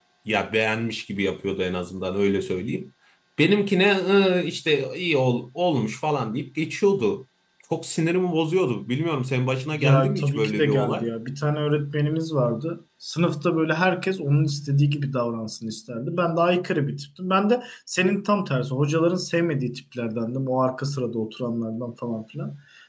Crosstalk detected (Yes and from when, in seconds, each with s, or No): Yes, from 9.7 s